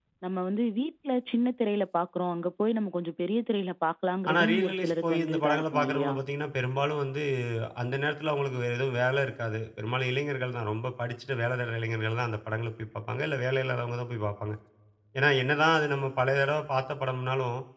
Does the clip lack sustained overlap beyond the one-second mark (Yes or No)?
No